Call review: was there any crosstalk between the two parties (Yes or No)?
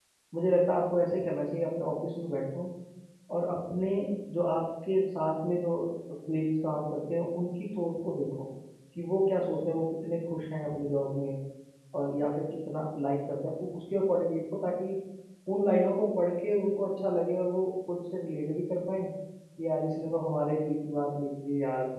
No